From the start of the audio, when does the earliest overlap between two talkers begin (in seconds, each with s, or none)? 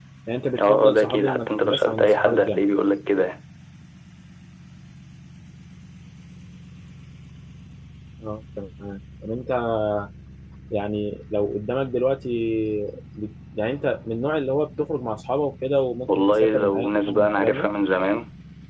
0.6 s